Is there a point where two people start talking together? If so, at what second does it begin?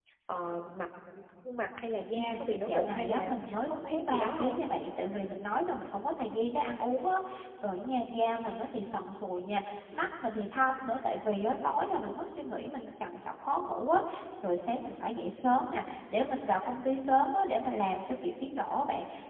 2.1 s

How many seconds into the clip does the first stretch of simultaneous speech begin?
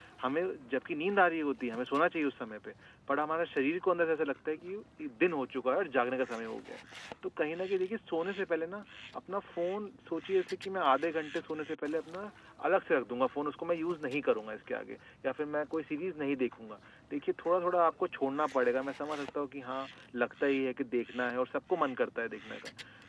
none

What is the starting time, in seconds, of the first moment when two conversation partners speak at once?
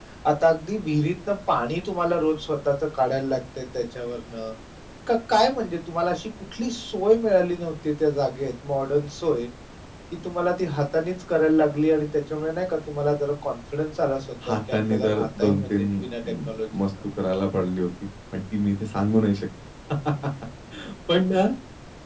14.4 s

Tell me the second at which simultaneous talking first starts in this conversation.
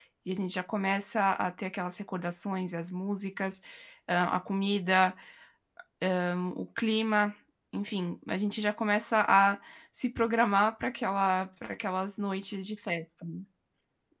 none

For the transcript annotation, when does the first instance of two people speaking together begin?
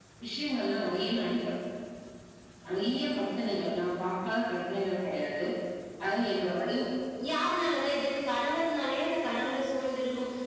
none

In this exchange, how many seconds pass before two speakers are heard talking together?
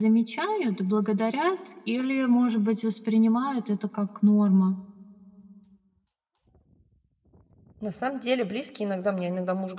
none

